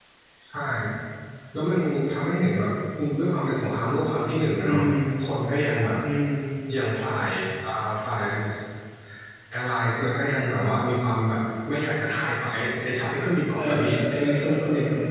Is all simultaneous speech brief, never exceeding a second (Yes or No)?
No